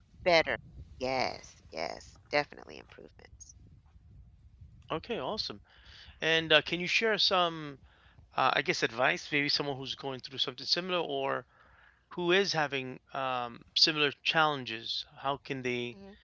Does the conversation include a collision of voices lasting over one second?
No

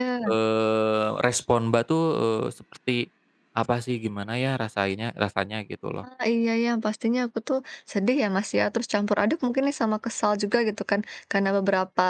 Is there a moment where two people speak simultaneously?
No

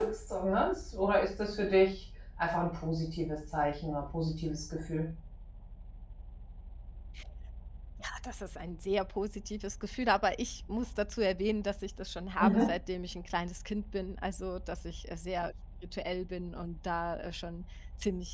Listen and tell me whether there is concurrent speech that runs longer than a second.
No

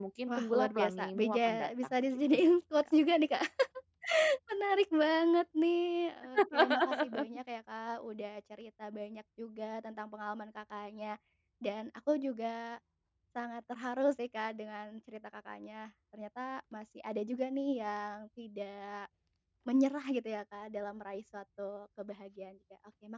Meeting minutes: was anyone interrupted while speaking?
Yes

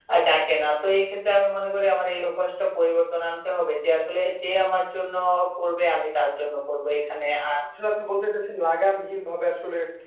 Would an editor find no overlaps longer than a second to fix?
Yes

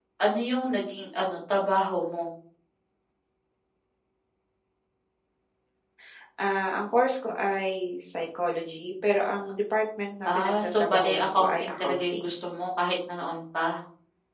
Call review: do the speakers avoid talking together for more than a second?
No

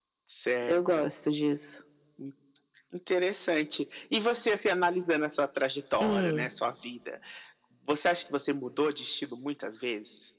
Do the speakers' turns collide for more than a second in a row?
No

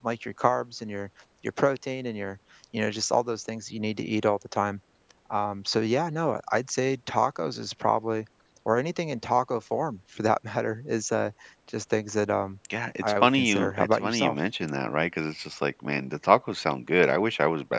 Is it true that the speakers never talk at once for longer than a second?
No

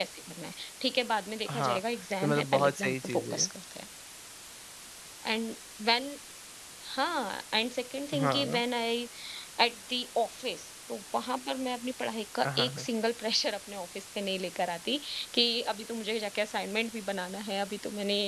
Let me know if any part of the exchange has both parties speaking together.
Yes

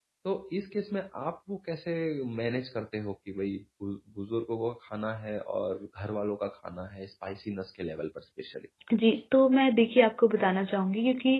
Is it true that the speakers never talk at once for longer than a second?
Yes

